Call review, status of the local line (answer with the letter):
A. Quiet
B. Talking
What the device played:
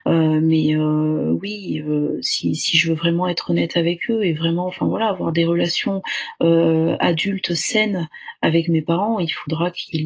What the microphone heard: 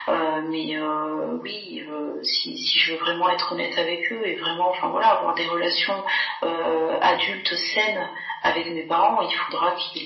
A